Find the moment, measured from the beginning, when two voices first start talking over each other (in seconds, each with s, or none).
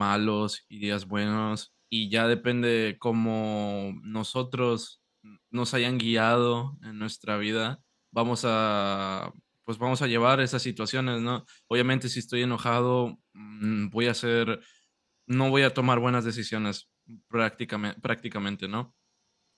none